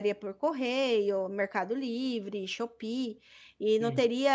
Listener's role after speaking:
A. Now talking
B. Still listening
B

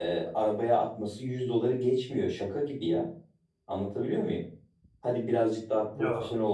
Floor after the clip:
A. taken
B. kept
B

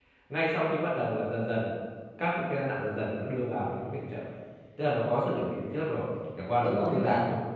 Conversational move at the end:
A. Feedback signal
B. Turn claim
B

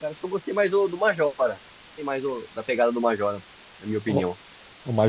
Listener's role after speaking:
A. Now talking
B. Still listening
A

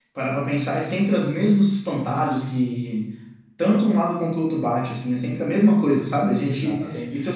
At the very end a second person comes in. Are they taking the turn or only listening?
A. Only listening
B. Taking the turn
A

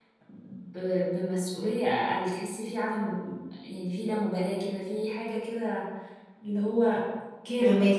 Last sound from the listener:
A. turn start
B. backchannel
A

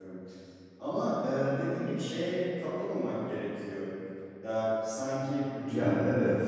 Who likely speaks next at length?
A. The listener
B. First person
B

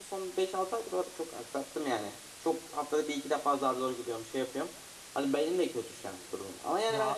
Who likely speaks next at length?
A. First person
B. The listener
A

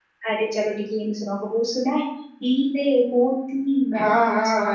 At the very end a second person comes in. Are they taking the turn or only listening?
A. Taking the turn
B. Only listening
A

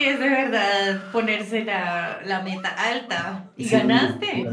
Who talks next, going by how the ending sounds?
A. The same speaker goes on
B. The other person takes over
B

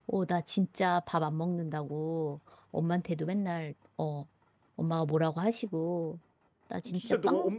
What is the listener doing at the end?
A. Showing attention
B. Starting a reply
B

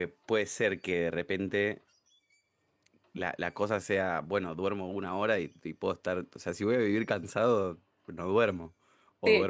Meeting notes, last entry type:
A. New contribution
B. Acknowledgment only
A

